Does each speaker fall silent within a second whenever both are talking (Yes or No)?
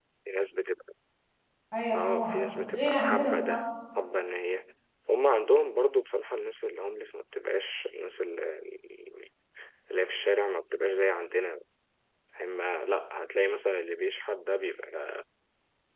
No